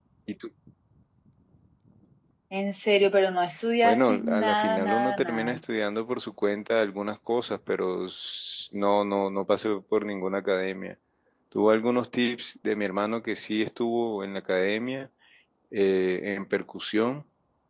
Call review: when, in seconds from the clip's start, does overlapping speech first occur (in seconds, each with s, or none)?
3.8 s